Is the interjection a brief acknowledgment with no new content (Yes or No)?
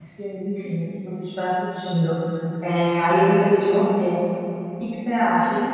Yes